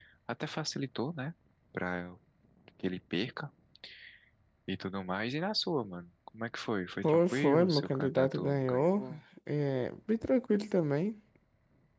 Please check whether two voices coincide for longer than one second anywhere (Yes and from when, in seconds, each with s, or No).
Yes, from 7.0 s